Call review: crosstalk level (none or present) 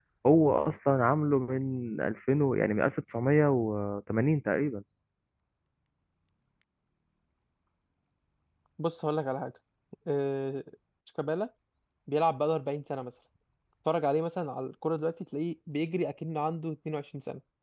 none